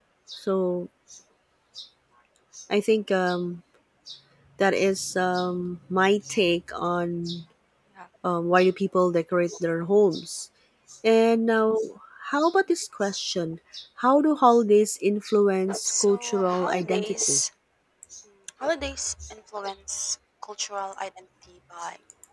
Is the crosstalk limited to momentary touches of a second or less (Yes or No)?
No